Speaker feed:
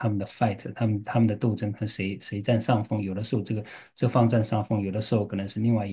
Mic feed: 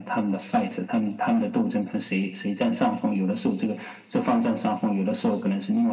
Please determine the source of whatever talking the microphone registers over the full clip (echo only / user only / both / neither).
echo only